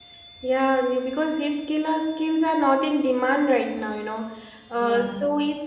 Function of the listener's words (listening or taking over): listening